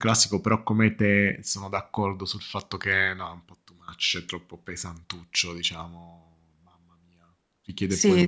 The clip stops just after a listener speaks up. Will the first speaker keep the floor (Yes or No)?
No